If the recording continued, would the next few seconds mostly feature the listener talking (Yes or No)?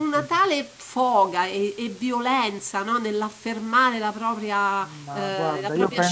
Yes